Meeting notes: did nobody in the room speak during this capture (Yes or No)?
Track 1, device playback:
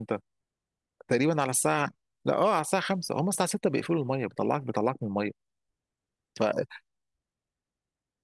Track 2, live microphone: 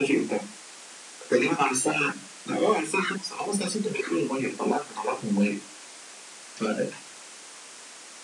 Yes